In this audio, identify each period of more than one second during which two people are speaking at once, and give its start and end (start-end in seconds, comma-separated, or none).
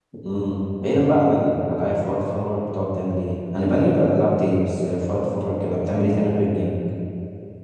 none